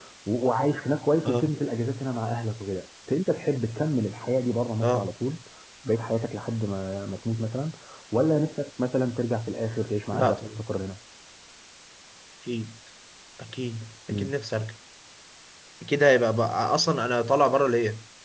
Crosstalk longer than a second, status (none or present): none